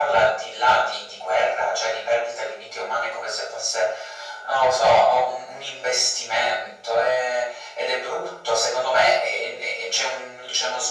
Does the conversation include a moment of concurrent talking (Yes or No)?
No